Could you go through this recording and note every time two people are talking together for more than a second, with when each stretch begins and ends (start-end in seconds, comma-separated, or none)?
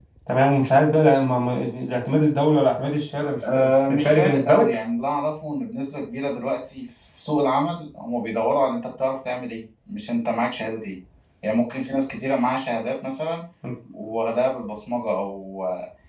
3.5-4.8